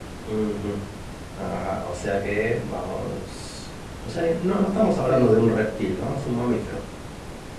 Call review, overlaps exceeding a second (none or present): present